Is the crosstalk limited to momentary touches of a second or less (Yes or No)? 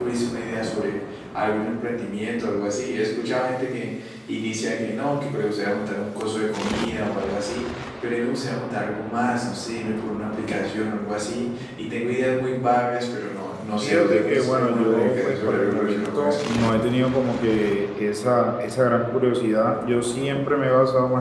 No